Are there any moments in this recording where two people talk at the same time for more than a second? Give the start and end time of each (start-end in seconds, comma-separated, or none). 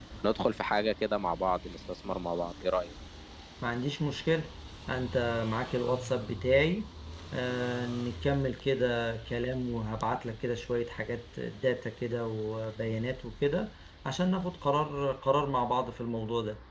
none